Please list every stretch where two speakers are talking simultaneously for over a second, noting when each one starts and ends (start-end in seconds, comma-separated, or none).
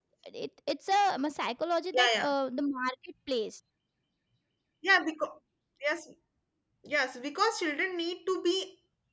none